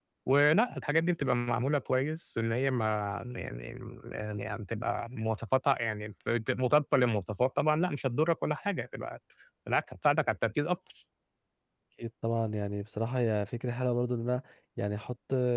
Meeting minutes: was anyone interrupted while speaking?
No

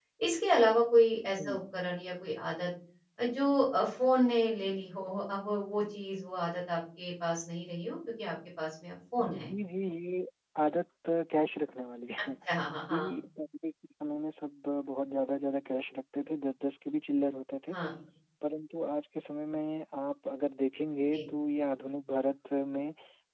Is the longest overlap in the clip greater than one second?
No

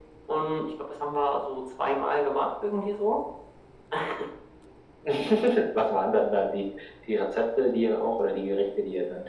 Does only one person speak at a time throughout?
Yes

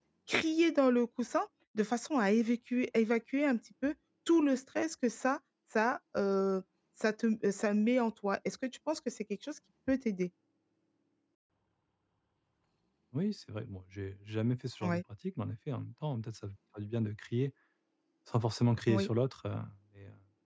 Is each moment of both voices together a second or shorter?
Yes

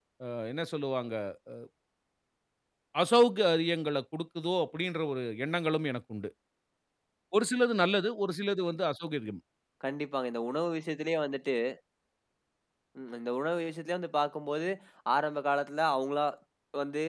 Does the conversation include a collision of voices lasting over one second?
No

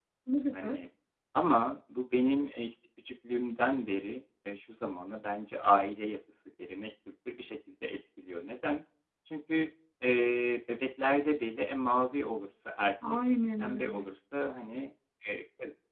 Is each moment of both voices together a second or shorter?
Yes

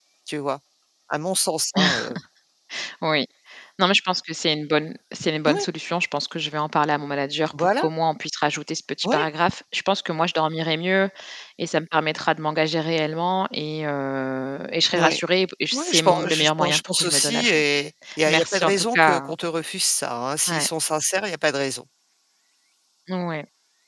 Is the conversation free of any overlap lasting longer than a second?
No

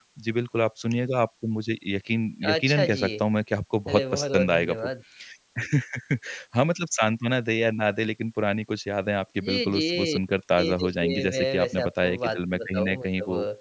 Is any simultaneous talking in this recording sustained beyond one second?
Yes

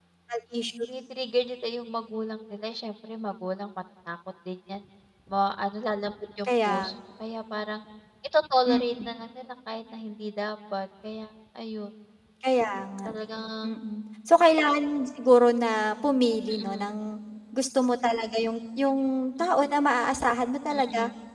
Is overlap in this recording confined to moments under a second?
Yes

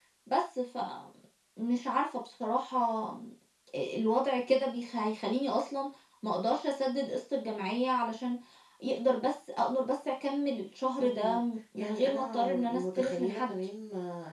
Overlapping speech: Yes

